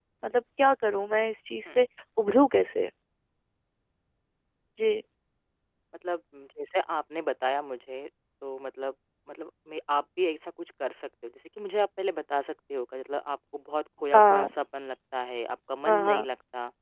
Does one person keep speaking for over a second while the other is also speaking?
No

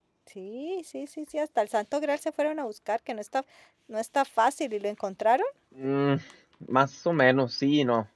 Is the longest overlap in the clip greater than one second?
No

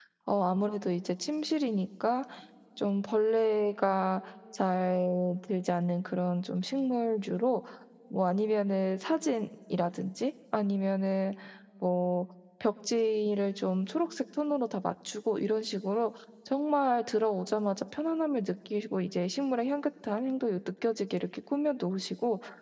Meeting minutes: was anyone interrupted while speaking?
No

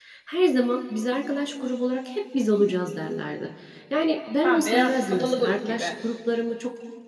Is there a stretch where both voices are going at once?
Yes, from 4.4 s

